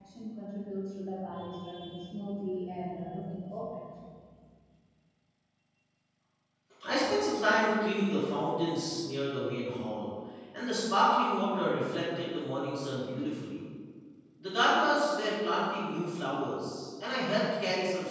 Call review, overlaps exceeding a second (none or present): none